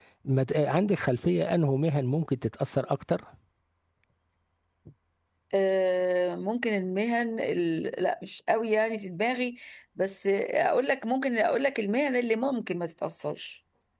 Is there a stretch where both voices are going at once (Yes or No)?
No